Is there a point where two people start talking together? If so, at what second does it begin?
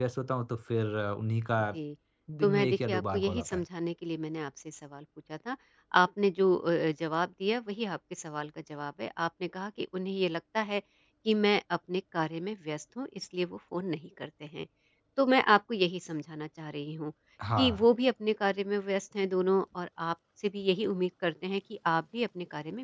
2.4 s

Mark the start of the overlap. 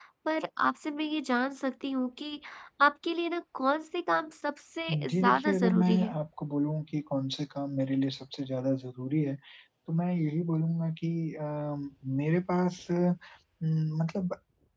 4.9 s

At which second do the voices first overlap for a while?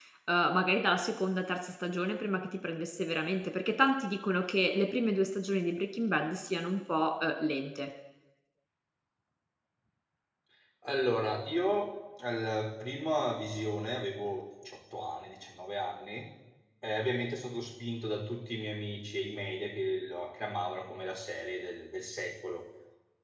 none

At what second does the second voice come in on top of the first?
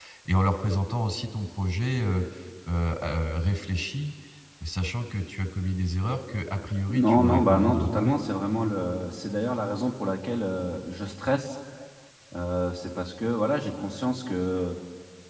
6.9 s

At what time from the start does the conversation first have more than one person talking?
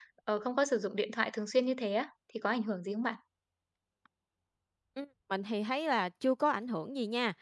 none

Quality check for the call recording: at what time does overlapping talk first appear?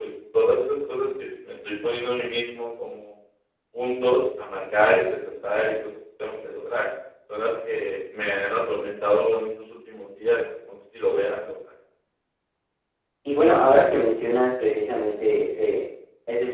none

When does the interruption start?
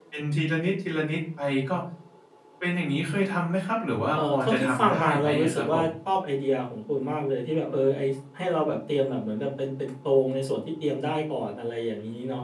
4.2 s

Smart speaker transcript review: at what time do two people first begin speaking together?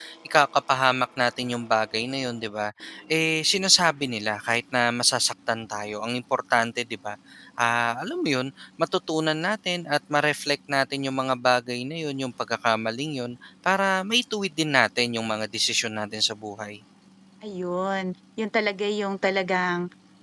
none

